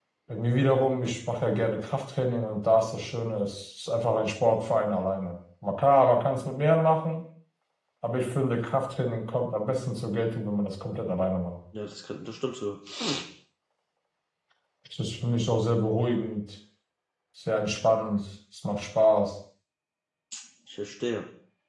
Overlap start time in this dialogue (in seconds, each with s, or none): none